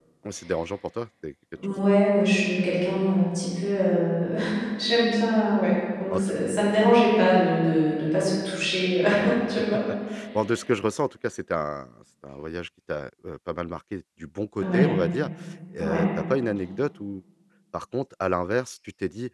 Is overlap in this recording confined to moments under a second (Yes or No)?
Yes